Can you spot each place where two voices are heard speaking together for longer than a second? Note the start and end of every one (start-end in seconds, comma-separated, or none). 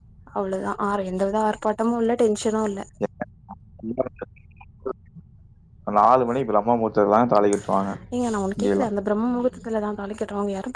none